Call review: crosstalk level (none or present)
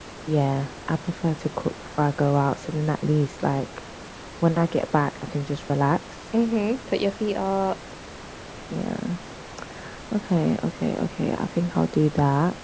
none